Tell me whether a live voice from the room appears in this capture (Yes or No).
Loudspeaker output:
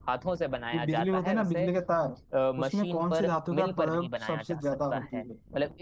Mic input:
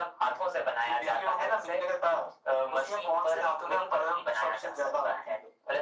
No